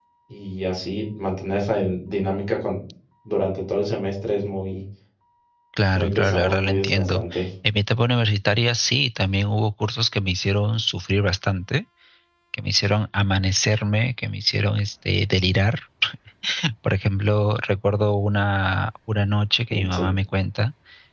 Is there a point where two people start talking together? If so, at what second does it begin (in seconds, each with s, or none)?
5.9 s